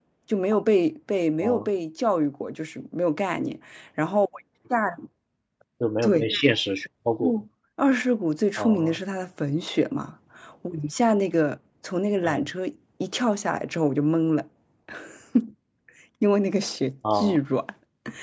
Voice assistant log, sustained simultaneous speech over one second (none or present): none